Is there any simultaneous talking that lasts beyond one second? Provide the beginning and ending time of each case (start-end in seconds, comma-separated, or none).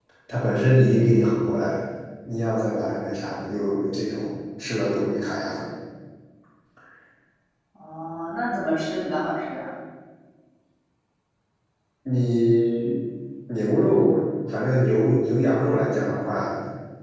none